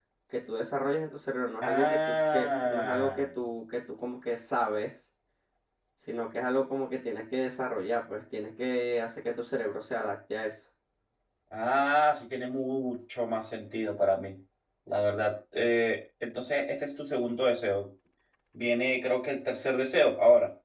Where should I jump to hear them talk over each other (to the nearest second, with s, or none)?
2 s